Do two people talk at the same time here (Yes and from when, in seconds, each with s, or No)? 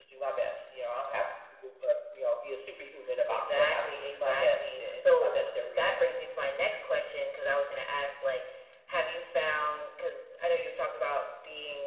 Yes, from 3.3 s